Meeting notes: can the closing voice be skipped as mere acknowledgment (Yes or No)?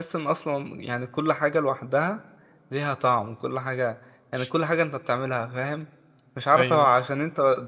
Yes